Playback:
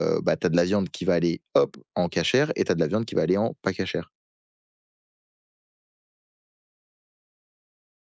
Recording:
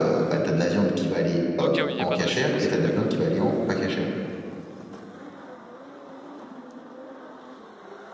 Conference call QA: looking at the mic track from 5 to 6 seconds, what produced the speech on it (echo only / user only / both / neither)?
neither